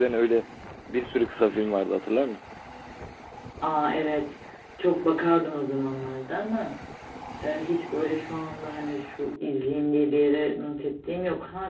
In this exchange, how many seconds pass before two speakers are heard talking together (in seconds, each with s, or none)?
none